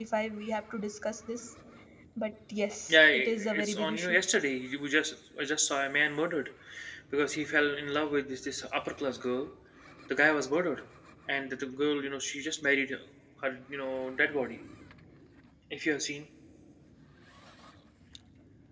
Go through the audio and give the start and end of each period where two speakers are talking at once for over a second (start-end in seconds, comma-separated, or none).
2.9-4.2